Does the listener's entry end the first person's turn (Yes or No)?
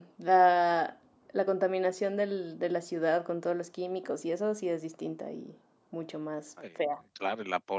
Yes